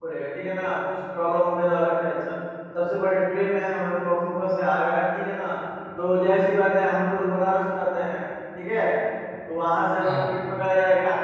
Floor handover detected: No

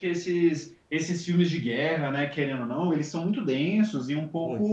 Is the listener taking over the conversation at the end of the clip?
No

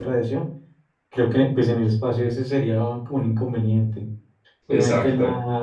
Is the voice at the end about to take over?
No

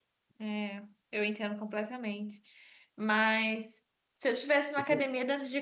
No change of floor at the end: Yes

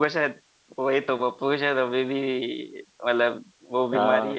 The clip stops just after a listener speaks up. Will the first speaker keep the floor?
No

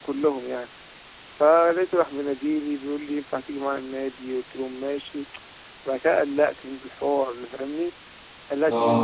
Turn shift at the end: No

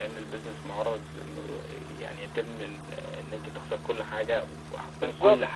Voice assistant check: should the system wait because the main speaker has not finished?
No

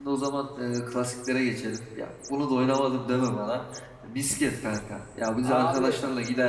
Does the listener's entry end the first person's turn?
No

